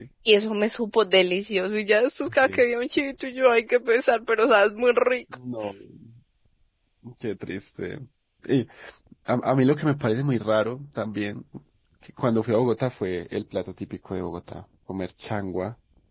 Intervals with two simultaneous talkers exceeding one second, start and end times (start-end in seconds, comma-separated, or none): none